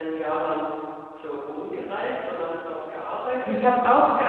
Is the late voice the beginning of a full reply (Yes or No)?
Yes